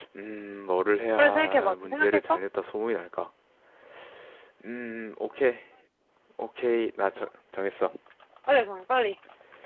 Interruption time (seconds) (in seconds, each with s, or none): 1.2 s